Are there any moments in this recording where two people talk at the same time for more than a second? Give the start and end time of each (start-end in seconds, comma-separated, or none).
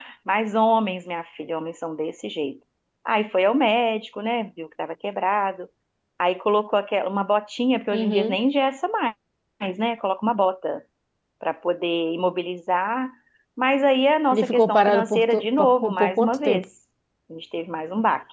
14.3-16.6